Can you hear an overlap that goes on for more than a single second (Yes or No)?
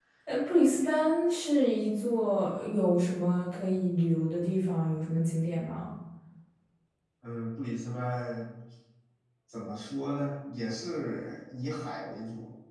No